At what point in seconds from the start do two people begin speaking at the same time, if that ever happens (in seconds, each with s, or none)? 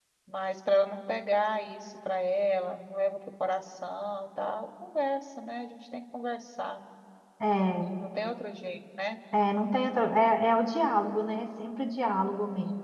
none